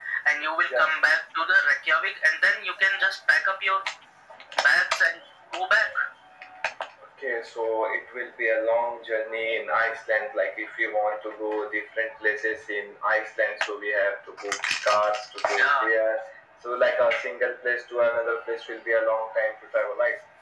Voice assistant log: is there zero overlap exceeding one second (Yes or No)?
Yes